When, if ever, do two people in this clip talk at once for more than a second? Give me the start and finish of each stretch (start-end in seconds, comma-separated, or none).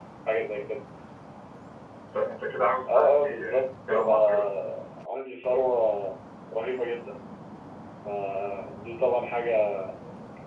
2.9-4.5